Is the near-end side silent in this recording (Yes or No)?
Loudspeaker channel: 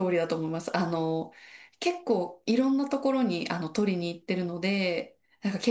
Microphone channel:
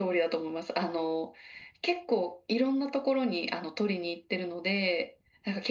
Yes